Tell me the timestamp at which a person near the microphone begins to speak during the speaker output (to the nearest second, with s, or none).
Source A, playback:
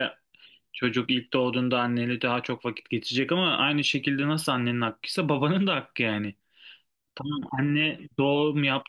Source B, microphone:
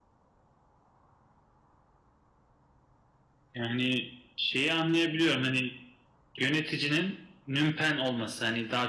4 s